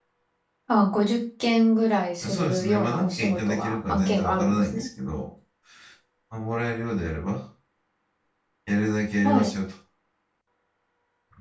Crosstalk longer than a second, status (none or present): present